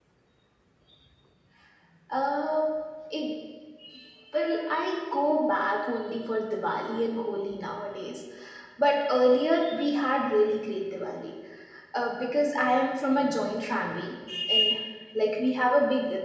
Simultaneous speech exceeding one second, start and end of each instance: none

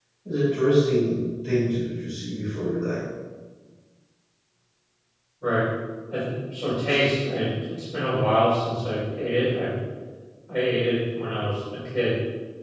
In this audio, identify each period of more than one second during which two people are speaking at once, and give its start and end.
none

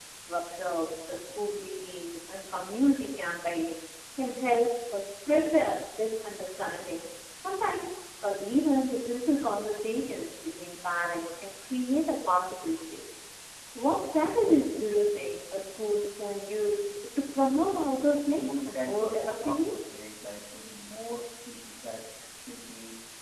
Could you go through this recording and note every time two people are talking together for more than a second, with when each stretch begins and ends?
18.2-19.7

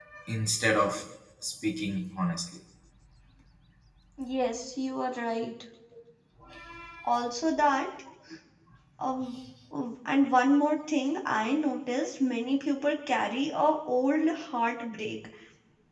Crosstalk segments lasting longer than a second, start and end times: none

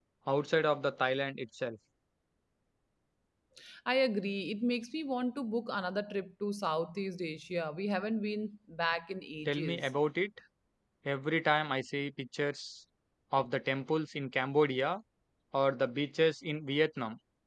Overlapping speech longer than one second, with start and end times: none

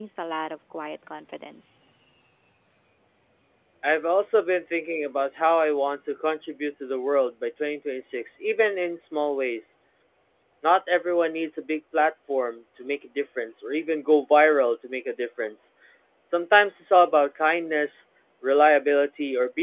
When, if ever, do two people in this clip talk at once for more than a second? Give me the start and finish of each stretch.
none

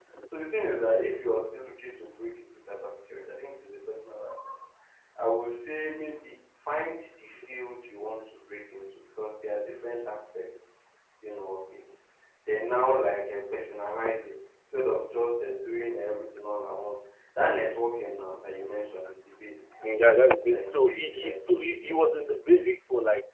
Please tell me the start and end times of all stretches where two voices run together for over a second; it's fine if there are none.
20.4-21.7

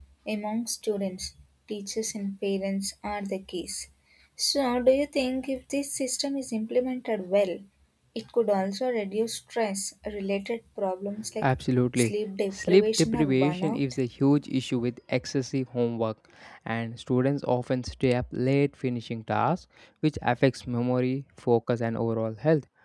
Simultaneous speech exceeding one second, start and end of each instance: 12.5-13.8

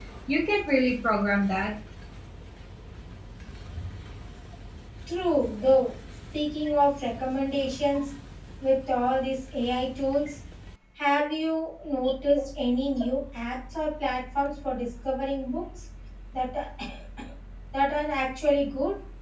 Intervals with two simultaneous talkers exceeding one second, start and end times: none

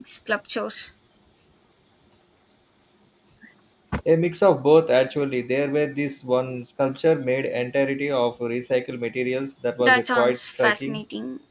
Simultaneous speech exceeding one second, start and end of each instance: 9.8-11.0

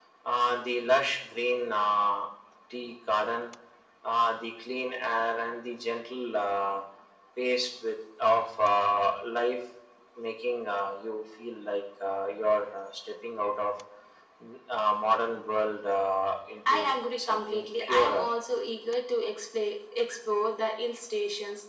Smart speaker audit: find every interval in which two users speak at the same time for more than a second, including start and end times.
16.7-18.2

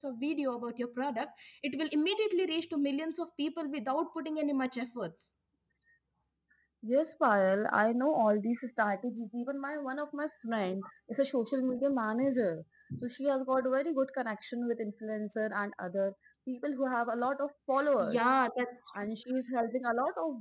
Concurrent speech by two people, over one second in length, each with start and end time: none

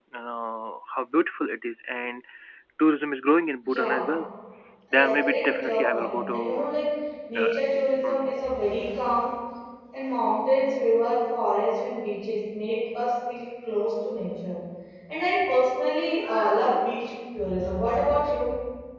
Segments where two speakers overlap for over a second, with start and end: 4.9-6.7

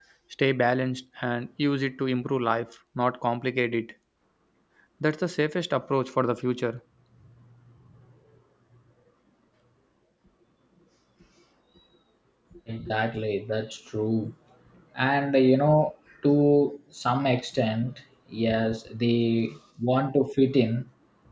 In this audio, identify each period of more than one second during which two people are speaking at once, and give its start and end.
none

